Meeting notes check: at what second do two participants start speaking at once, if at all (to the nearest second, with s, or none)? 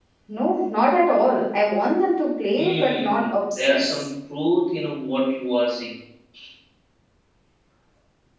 3 s